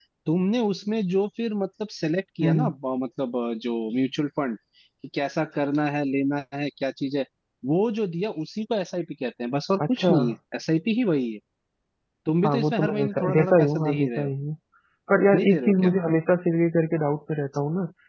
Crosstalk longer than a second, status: present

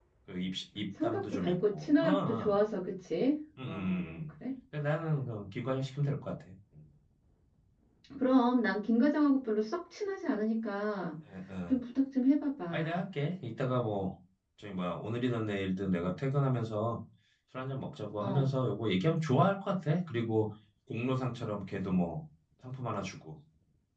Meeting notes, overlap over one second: present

